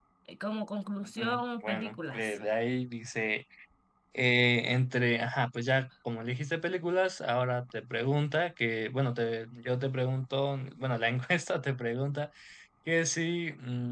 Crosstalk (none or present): present